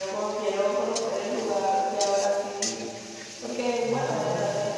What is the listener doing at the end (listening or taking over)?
listening